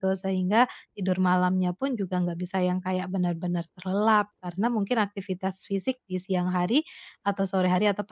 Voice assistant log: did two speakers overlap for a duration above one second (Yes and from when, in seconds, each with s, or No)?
No